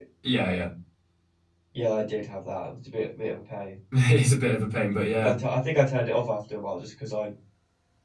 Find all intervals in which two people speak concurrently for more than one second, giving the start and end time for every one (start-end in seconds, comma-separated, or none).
none